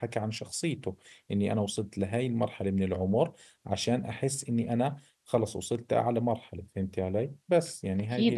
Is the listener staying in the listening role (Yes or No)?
No